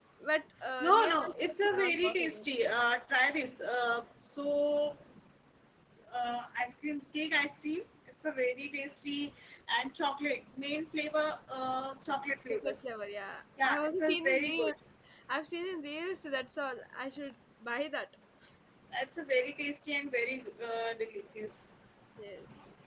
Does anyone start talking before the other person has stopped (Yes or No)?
Yes